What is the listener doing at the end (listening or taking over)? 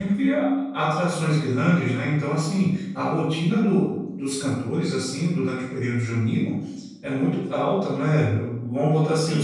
listening